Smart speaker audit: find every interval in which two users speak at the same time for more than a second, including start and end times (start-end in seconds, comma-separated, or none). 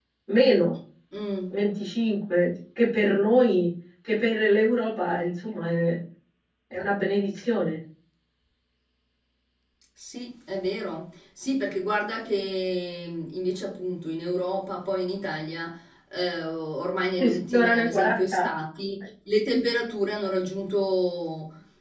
17.2-18.4